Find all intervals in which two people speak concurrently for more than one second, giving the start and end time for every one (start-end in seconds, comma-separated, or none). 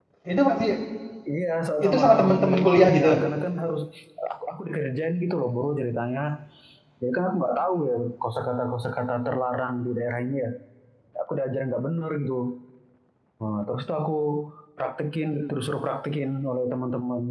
1.9-3.2